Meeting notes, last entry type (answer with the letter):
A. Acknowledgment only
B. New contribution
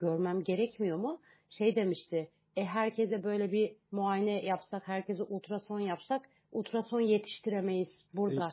B